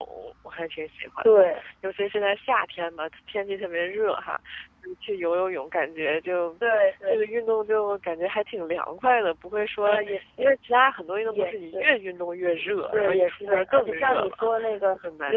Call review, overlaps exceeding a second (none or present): present